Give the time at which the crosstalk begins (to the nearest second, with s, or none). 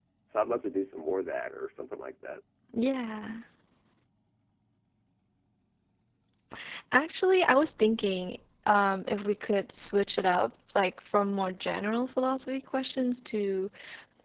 none